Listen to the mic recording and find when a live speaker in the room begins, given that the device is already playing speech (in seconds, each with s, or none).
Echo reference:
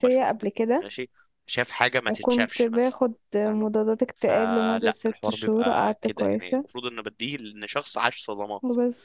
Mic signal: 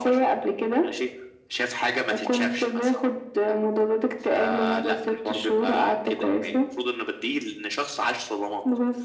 none